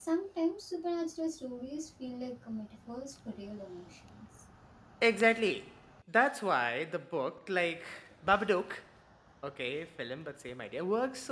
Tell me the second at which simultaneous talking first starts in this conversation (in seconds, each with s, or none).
none